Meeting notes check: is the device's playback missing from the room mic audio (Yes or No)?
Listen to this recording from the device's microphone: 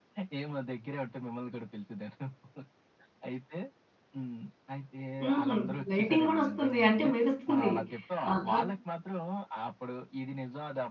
No